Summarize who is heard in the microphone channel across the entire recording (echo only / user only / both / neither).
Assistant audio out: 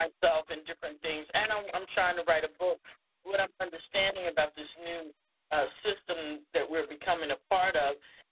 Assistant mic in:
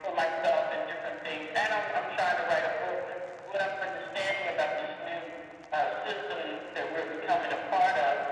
echo only